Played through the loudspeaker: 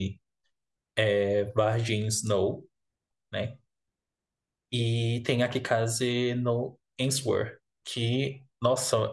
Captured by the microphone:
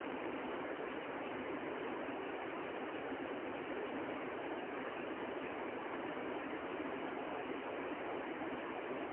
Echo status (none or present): none